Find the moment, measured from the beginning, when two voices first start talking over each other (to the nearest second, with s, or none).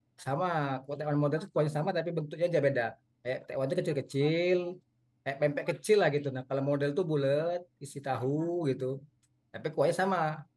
none